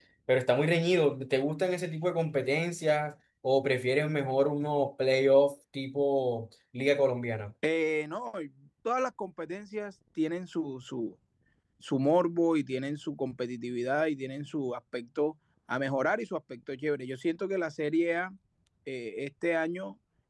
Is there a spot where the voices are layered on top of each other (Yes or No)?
No